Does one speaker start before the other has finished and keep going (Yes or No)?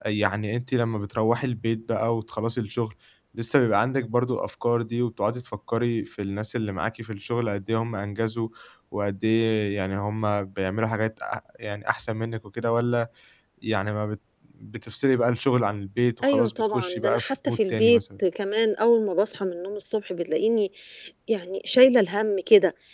Yes